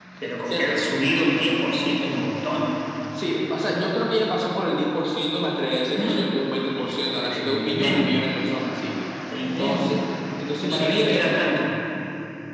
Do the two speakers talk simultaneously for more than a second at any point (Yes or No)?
Yes